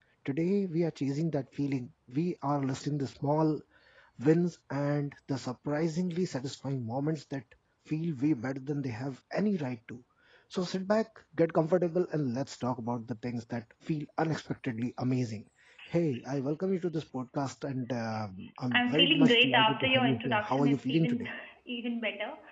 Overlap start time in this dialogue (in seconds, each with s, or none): 18.7 s